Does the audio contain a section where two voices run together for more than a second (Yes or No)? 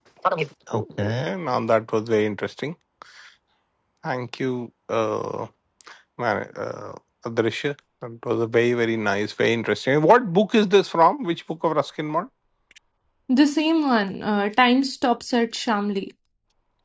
No